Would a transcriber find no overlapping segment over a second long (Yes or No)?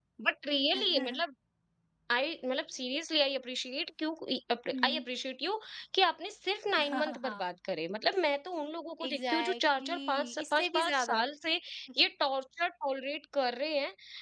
No